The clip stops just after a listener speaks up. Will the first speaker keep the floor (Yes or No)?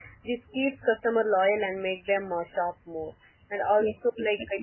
Yes